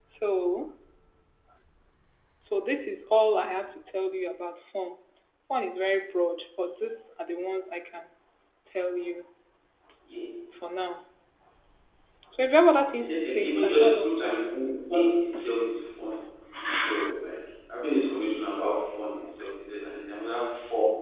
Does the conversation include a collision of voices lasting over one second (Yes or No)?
Yes